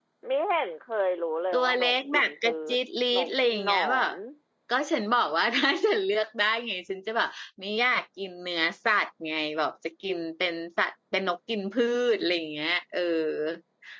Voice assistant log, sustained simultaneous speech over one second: present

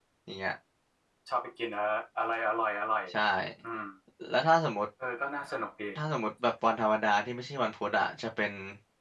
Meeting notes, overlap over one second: none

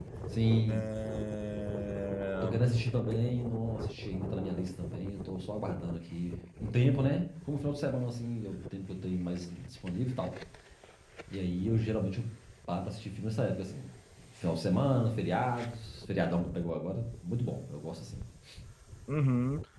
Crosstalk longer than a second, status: none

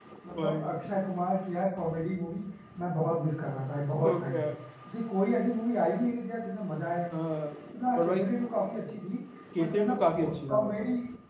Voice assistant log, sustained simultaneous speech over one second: none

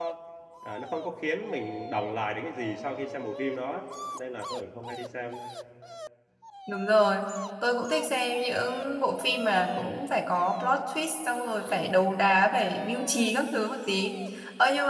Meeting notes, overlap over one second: none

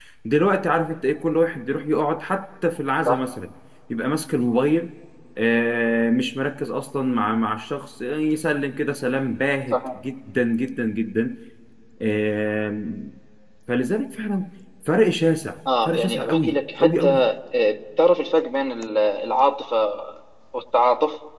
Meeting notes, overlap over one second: present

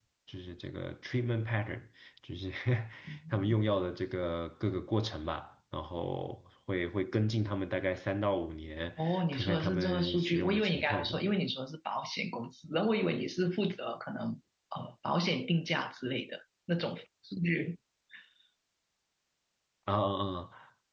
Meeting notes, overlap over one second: present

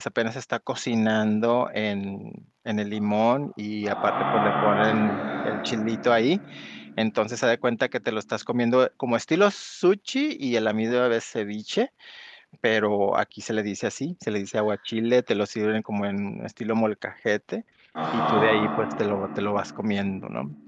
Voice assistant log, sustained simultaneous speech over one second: present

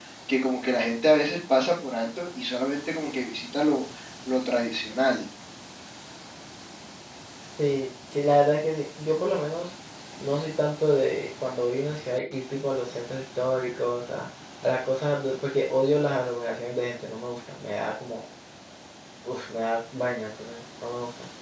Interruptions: none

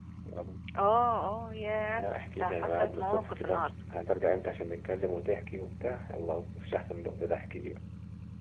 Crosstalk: present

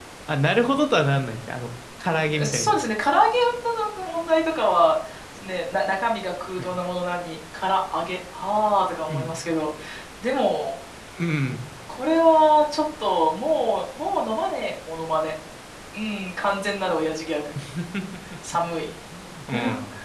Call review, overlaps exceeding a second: none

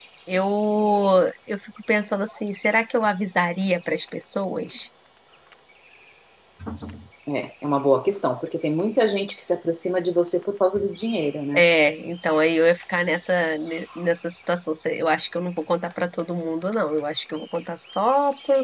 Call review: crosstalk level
none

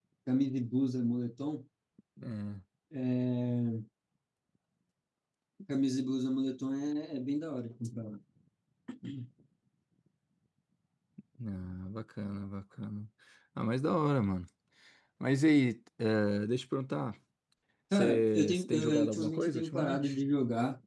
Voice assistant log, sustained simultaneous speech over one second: present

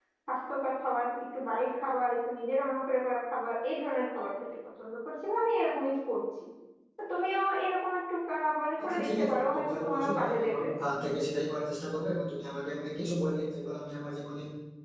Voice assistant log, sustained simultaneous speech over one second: present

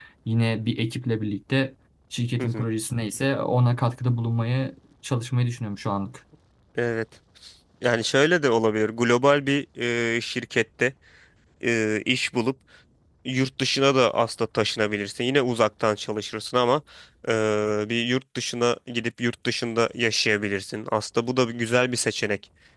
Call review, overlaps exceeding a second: none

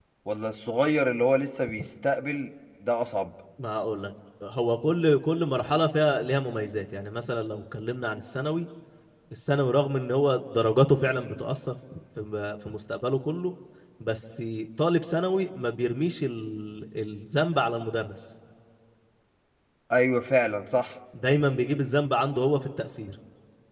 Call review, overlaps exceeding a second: none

